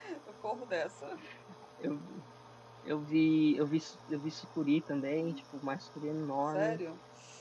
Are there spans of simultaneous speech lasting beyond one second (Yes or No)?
No